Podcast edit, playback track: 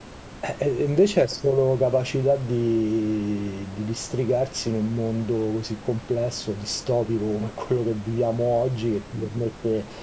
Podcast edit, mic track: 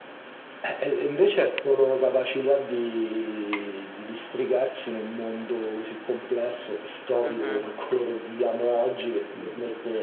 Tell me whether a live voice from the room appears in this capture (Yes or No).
Yes